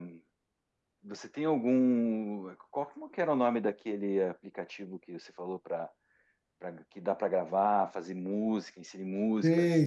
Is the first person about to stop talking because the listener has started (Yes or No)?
Yes